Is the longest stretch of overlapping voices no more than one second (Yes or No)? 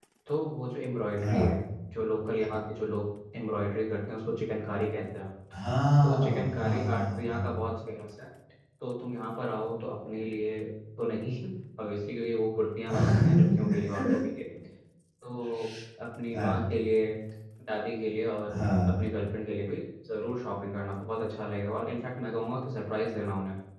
No